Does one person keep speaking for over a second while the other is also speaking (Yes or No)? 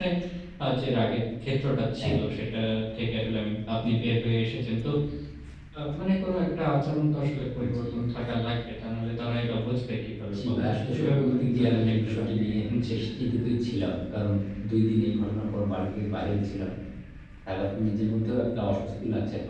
Yes